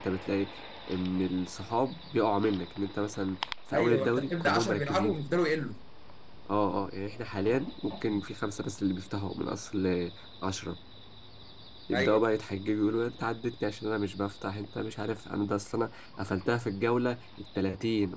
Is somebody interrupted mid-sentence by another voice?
Yes, from 3.7 s

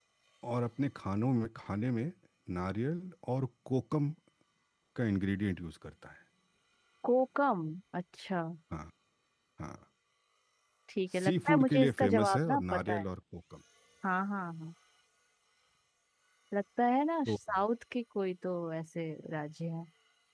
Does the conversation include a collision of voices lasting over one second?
Yes, from 11.1 s

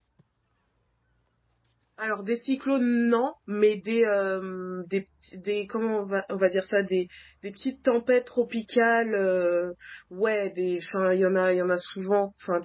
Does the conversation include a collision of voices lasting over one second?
No

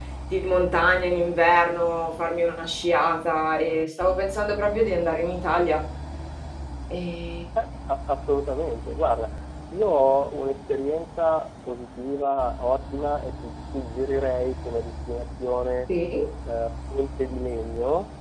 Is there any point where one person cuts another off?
No

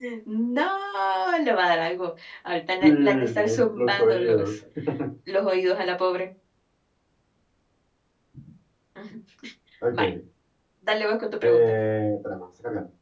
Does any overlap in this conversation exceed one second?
Yes, from 2.8 s

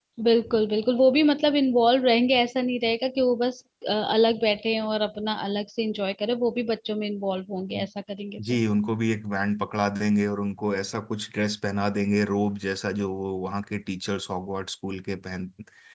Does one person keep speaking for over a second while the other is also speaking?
No

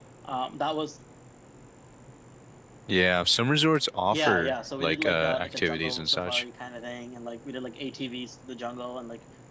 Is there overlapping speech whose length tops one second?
Yes, from 4.1 s

